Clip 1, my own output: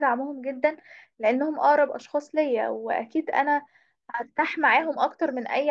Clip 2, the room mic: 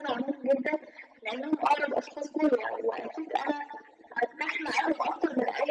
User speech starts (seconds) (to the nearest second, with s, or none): none